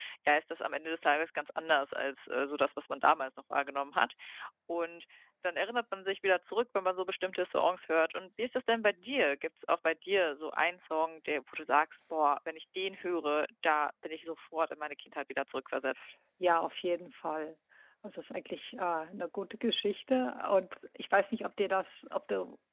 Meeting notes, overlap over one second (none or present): none